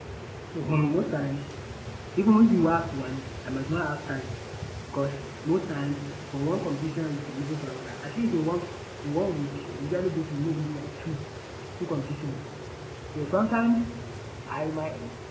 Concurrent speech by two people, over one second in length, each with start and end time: none

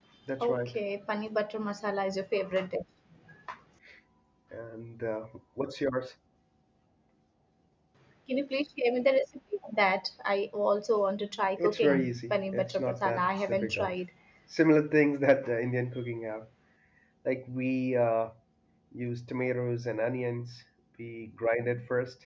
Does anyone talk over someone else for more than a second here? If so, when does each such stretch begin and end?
11.6-13.9

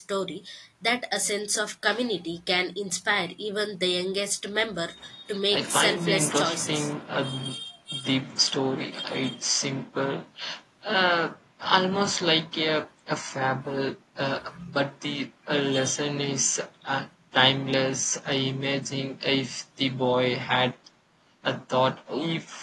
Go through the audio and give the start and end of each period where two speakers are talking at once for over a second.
5.5-6.9

